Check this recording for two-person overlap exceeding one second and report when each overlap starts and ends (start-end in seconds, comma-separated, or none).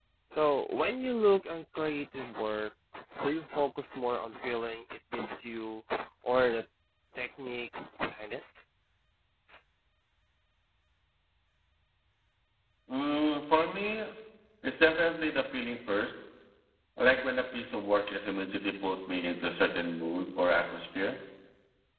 none